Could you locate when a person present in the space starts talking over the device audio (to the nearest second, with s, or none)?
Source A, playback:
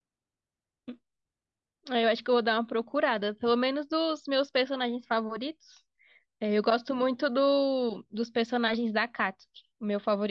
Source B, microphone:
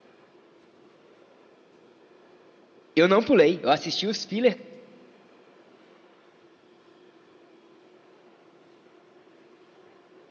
3 s